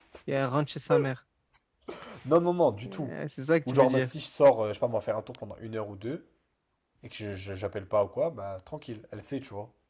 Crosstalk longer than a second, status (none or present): none